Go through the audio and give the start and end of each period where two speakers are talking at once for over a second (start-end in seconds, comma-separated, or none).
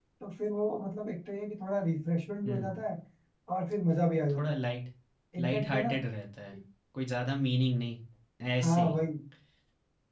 none